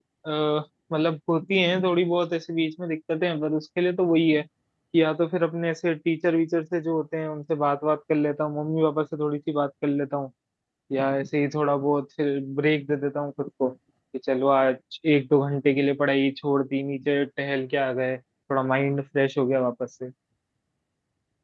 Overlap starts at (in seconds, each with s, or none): none